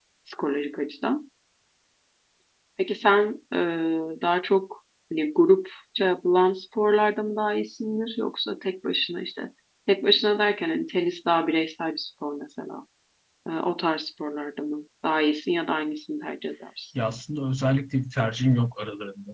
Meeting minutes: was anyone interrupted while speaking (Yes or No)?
No